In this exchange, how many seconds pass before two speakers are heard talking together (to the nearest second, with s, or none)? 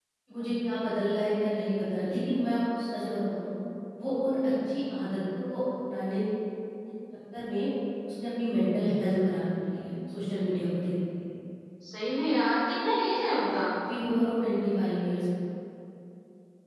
none